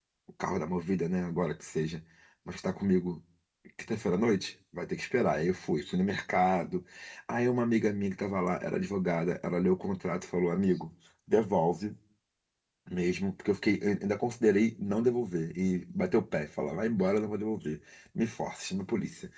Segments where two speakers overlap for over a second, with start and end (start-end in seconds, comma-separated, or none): none